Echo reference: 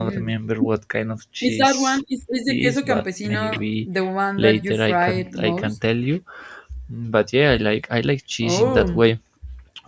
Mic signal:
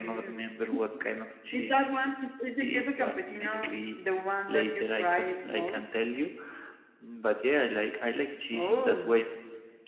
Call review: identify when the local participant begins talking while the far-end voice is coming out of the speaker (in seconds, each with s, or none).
none